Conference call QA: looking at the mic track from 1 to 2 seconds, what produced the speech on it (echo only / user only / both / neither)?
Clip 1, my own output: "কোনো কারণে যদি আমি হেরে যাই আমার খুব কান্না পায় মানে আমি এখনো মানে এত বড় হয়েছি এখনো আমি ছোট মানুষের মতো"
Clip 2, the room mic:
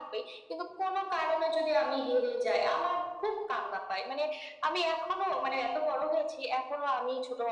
echo only